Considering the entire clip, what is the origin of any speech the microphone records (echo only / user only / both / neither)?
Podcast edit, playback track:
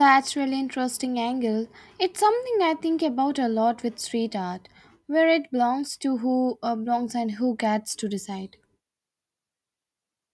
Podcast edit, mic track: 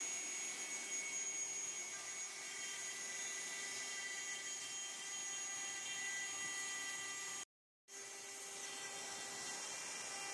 neither